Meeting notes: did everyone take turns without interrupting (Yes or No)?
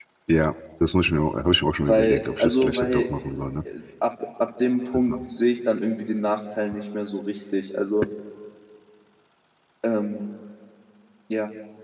No